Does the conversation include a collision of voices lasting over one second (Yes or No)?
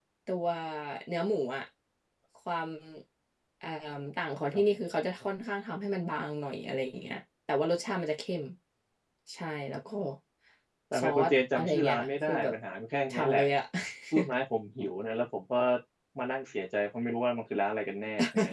Yes